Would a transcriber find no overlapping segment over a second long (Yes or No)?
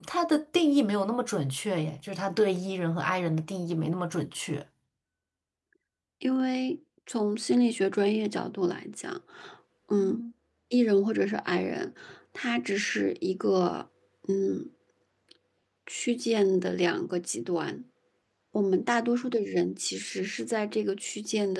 Yes